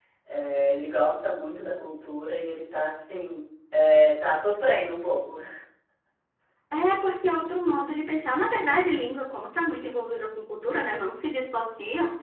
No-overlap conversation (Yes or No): Yes